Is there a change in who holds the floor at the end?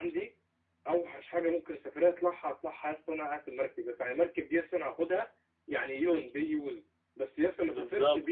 No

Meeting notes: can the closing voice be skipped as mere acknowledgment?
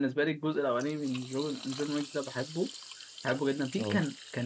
Yes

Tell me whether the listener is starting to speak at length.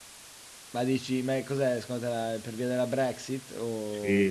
Yes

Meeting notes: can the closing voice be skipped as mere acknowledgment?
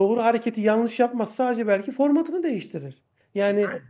Yes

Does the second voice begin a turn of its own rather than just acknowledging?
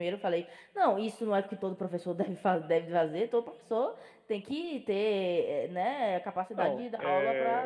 Yes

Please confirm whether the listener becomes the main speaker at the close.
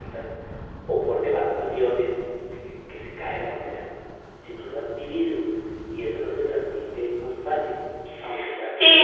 Yes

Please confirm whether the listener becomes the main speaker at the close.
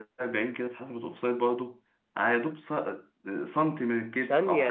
Yes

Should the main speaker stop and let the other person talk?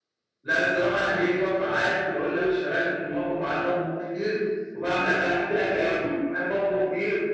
Yes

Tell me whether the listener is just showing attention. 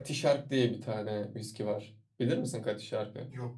Yes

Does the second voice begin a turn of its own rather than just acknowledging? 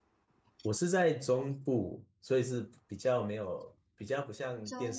No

